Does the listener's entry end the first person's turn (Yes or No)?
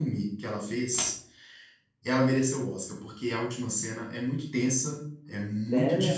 No